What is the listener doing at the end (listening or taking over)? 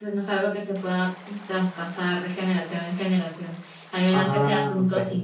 listening